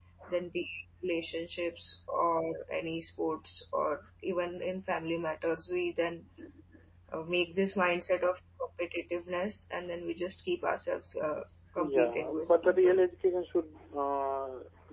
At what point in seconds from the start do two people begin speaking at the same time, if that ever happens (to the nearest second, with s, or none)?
12 s